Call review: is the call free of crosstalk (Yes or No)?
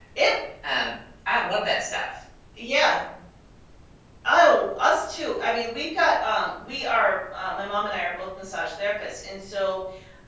Yes